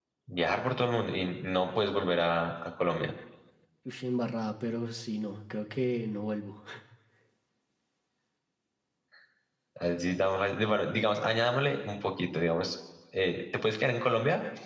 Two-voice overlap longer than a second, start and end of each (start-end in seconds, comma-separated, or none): none